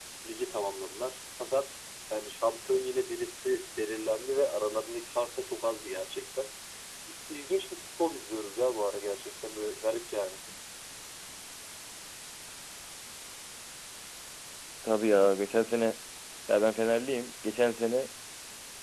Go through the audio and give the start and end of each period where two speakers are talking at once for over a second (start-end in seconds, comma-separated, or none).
none